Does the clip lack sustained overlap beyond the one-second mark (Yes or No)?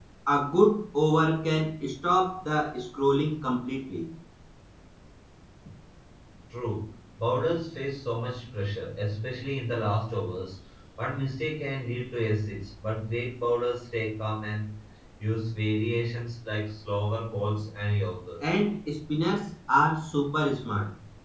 Yes